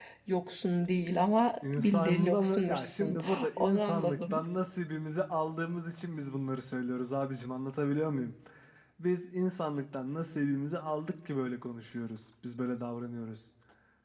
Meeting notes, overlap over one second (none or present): present